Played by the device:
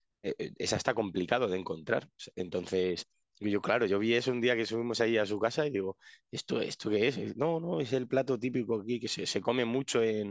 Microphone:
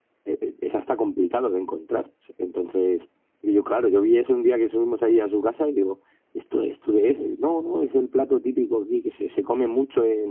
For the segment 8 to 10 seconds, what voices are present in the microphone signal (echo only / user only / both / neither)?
echo only